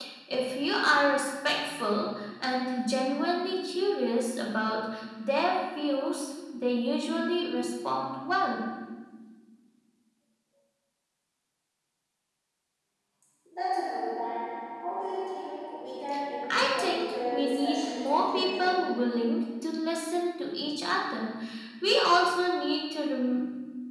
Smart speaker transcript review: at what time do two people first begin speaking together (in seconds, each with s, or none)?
16.4 s